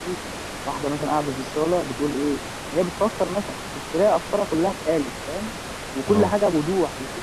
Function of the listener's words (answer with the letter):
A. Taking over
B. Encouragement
B